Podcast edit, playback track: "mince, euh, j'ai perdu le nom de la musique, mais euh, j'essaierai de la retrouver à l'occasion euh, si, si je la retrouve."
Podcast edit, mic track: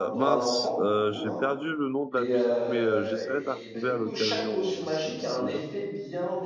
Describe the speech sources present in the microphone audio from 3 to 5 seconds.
both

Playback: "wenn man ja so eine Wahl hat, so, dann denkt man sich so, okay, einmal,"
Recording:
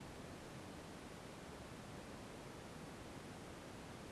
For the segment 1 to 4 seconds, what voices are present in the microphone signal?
neither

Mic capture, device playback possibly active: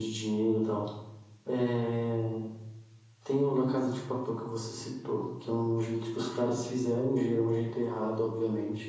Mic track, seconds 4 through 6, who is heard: echo only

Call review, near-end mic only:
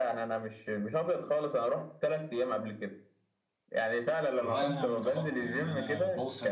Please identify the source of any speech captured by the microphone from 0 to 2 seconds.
echo only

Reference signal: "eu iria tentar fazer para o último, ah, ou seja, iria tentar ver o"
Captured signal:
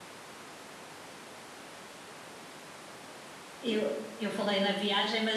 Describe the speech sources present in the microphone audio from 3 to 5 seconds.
user only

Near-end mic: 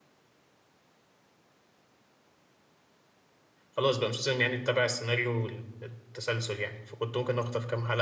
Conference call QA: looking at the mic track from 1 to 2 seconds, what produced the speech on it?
neither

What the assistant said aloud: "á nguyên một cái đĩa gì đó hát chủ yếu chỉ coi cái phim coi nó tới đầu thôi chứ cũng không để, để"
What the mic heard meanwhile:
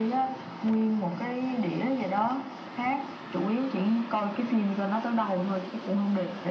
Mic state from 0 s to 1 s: echo only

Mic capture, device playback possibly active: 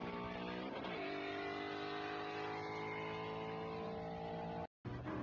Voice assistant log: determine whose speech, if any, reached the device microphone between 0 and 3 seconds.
neither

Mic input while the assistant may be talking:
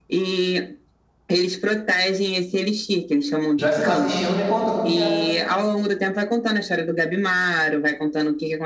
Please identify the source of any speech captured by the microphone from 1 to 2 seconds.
echo only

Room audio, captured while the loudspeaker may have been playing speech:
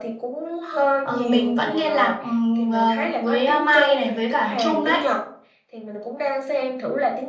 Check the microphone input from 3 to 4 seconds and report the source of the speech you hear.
echo only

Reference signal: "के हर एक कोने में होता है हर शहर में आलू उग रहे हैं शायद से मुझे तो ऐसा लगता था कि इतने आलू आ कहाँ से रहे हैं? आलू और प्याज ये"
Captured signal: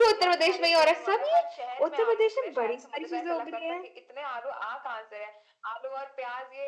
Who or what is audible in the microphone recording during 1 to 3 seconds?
both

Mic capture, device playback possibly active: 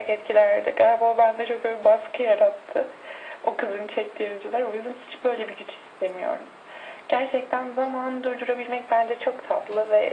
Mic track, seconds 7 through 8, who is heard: echo only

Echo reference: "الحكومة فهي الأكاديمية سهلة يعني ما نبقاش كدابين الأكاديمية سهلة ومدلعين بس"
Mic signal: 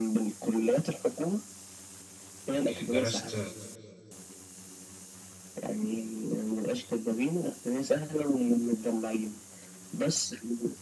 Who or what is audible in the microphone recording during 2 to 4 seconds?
both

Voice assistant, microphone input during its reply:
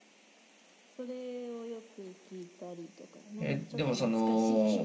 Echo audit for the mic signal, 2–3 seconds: echo only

